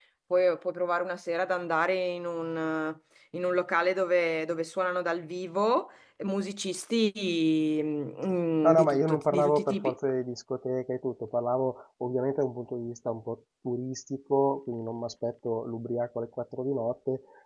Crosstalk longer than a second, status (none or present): present